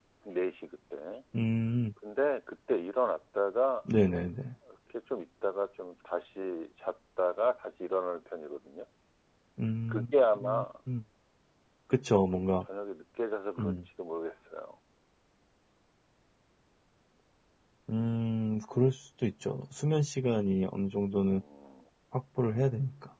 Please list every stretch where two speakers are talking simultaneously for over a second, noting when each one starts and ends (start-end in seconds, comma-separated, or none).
none